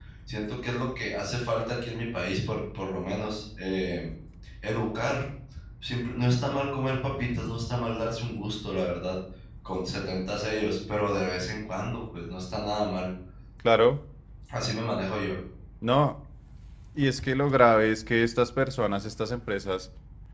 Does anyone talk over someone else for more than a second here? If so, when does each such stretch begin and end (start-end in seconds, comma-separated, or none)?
none